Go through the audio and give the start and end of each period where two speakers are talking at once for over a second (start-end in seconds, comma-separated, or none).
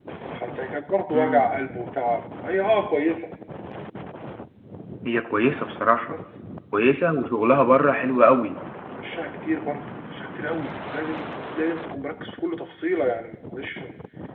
none